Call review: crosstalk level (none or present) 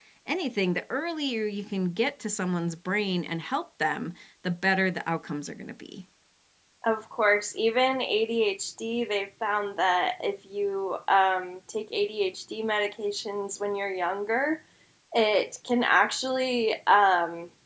none